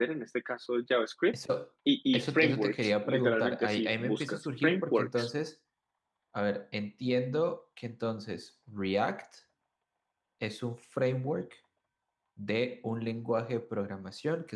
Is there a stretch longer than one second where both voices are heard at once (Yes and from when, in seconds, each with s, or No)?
Yes, from 2.1 s